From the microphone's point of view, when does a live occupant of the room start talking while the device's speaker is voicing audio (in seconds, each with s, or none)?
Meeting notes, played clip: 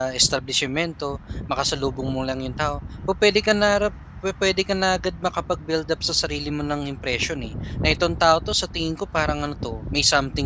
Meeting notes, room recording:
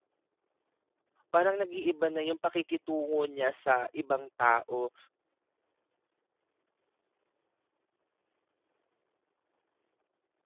1.3 s